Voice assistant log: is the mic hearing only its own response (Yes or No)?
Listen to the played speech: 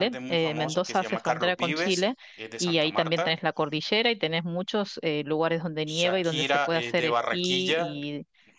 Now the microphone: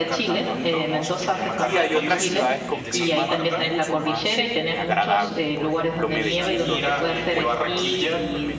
No